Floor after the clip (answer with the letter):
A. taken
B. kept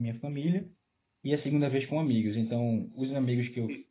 B